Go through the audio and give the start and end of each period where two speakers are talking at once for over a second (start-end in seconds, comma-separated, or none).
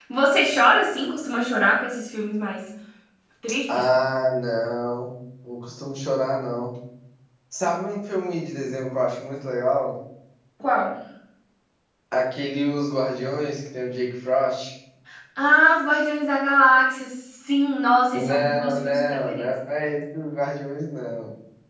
18.1-19.5